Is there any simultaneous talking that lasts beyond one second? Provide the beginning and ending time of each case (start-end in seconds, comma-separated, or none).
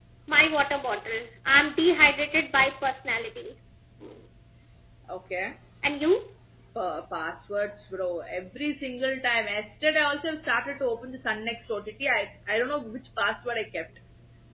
none